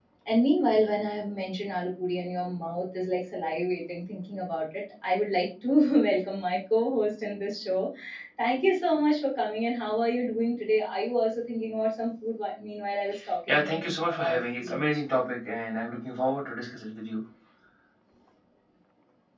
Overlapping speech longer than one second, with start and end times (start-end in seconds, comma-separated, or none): 13.5-14.8